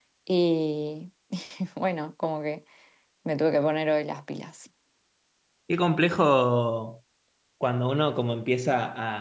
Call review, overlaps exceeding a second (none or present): none